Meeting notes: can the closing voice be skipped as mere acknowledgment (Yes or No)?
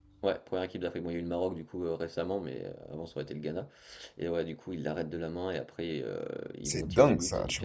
No